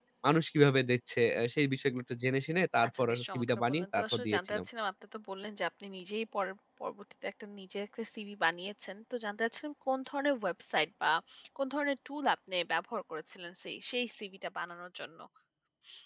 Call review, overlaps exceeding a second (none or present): present